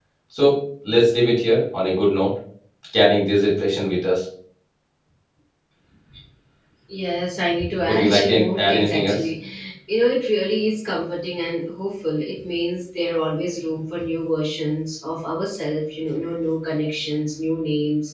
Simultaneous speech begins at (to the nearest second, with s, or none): 8 s